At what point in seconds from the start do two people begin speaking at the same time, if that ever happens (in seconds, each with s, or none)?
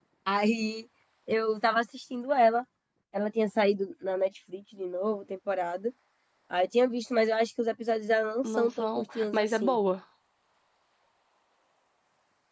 8.4 s